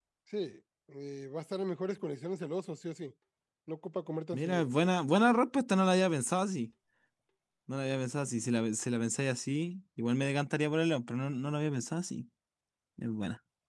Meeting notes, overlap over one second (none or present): none